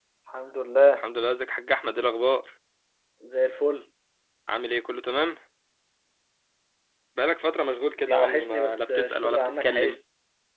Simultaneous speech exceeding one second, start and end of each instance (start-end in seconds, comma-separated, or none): 8.1-10.0